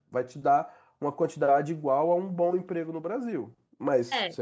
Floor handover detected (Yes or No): No